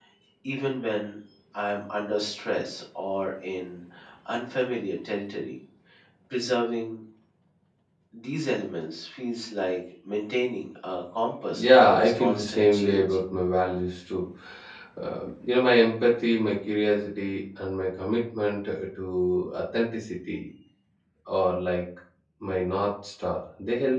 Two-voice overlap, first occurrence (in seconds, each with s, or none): 11.6 s